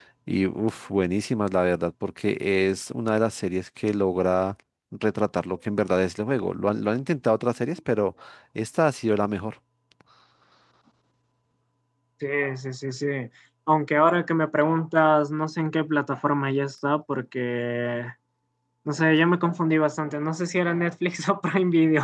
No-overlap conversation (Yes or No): Yes